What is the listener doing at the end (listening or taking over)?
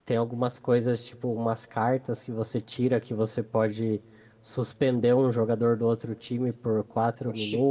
listening